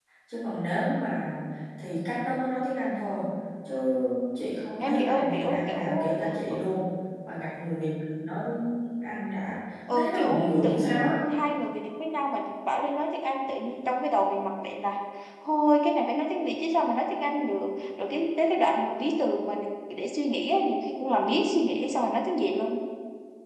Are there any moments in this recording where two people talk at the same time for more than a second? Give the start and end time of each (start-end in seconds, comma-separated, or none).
4.8-6.1, 9.9-11.1